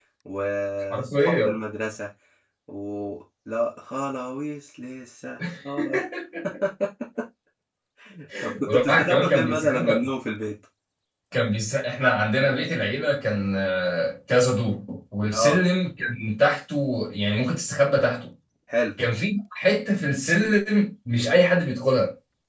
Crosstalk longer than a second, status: present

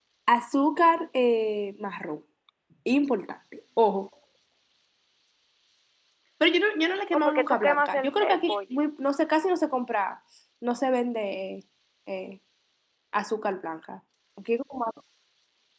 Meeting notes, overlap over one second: present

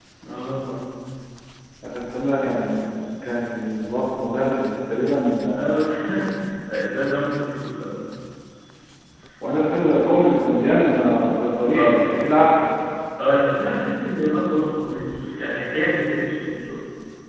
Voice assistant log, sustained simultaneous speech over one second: none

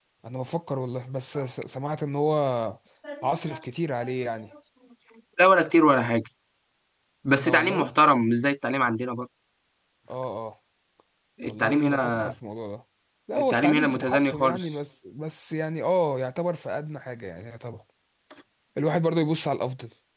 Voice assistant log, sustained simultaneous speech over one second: present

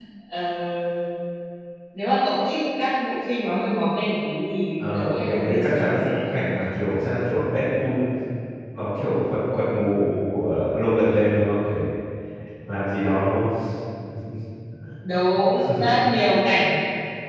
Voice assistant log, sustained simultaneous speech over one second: present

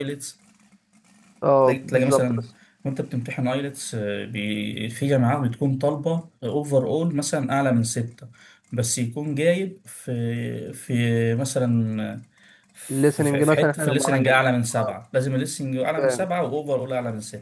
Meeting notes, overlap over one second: present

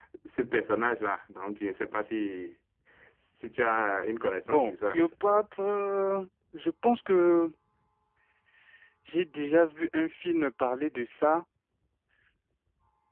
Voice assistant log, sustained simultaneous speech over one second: none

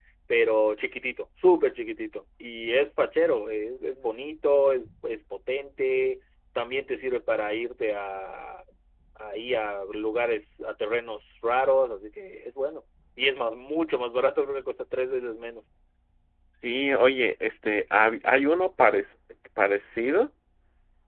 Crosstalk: none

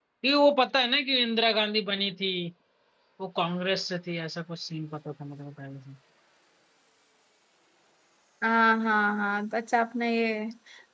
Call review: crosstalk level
none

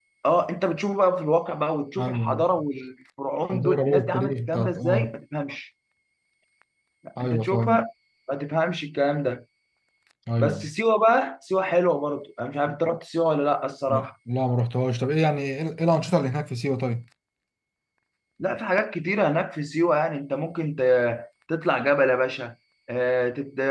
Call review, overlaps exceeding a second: present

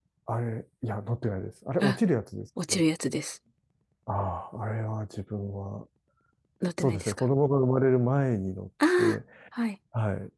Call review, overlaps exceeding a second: none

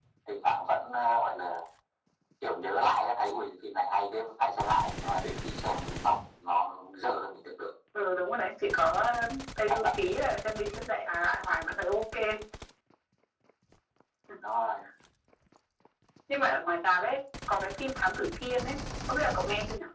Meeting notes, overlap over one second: none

